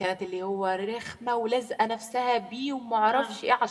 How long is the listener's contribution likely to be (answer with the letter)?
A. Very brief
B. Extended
A